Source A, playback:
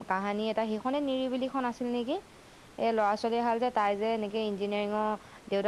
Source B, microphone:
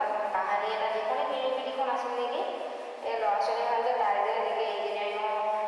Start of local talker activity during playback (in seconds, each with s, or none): none